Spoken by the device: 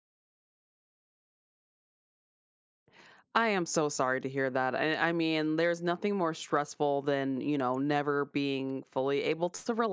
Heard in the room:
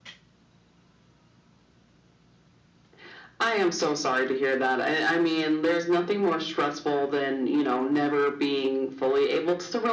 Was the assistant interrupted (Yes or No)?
No